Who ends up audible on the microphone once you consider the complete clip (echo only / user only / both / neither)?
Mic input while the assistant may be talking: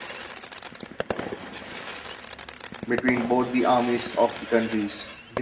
user only